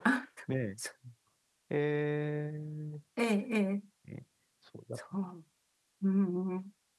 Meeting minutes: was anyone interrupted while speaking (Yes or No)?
No